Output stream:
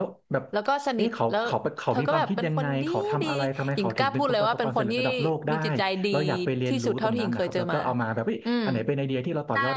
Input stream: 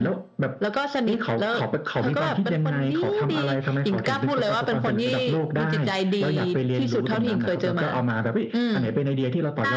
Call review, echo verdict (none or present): present